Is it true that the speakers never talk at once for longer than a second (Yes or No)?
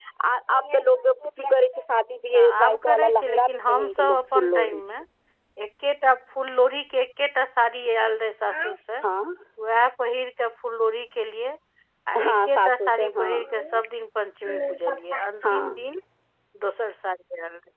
No